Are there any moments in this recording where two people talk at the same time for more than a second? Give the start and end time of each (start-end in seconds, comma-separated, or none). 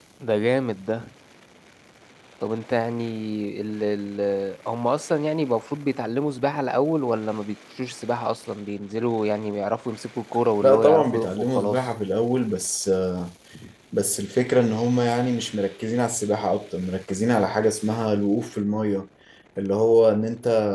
10.6-11.9